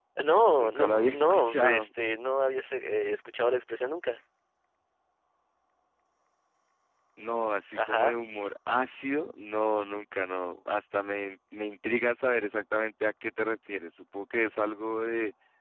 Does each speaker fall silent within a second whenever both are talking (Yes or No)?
No